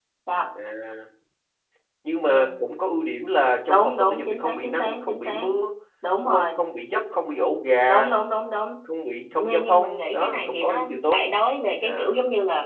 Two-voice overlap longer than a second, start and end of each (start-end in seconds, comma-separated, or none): 3.6-5.5, 9.4-11.2